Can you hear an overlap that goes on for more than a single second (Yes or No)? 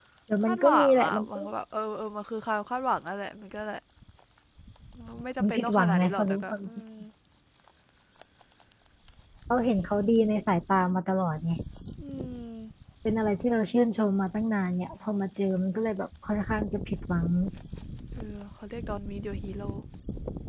Yes